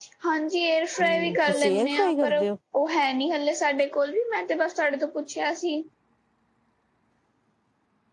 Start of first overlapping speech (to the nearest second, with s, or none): 1 s